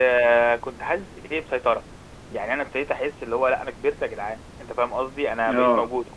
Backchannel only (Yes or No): Yes